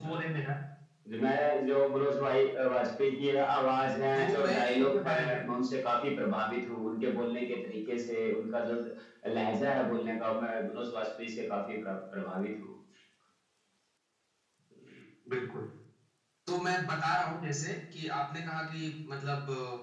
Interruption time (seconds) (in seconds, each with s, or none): 4.2 s